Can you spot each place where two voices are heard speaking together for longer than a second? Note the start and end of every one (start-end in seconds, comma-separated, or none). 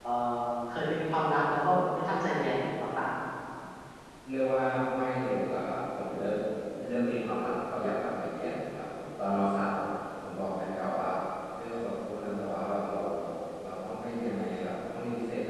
none